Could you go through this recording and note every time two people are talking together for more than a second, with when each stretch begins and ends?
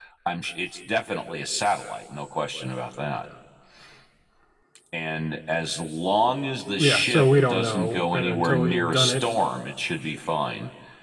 6.8-9.3

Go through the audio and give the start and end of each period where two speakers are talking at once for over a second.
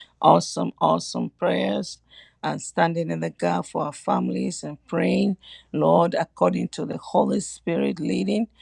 none

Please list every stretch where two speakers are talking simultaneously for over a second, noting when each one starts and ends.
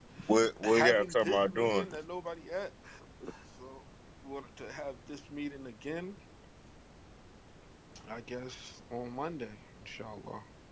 0.6-1.9

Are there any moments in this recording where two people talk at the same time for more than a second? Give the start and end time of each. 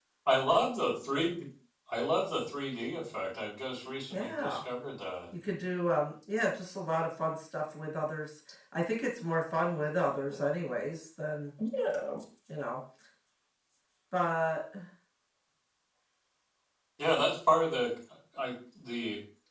none

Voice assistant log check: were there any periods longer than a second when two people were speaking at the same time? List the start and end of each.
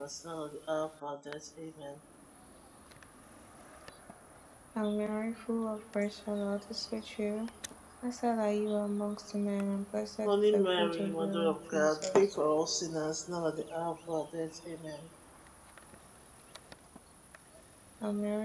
10.2-12.4

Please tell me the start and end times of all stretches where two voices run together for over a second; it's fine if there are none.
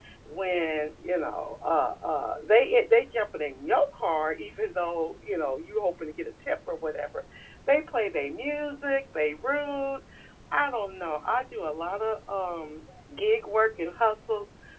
none

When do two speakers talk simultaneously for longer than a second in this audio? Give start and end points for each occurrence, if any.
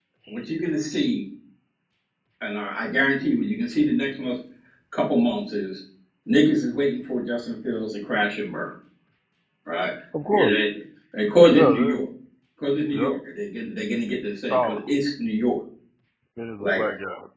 none

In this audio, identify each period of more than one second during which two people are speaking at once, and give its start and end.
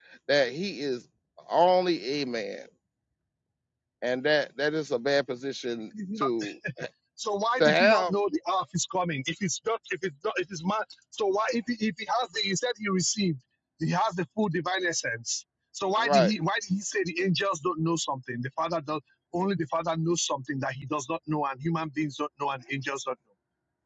none

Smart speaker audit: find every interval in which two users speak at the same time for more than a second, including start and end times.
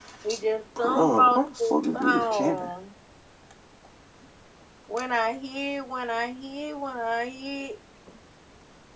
0.8-2.7

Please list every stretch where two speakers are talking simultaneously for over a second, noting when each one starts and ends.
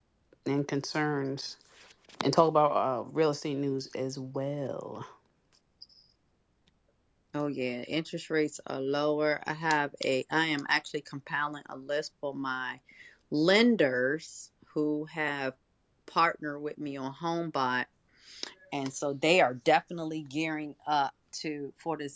none

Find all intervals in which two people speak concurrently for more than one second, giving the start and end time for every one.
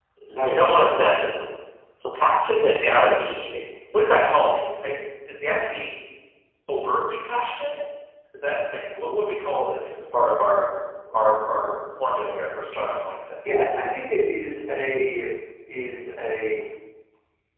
none

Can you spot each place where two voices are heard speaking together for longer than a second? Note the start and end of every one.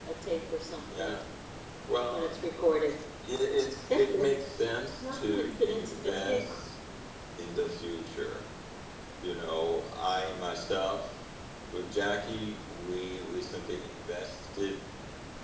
5.0-6.6

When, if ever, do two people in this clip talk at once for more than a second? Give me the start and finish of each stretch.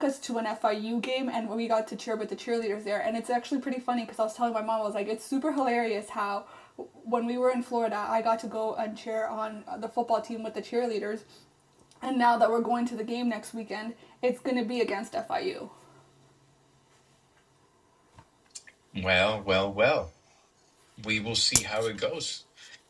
none

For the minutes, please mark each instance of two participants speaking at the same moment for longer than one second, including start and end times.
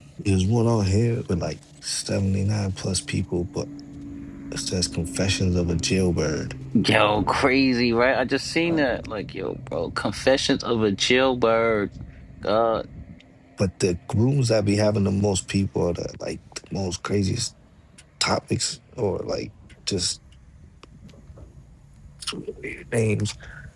none

